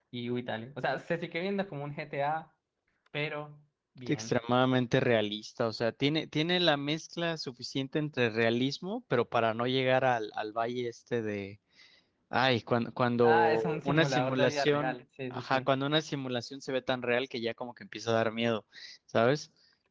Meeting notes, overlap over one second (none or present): present